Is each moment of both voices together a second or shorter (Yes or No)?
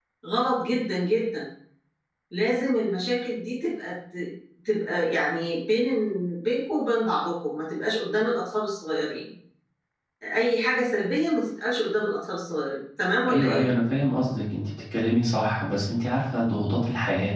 Yes